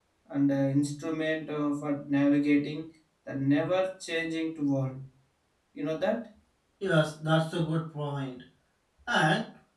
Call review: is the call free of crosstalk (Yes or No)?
Yes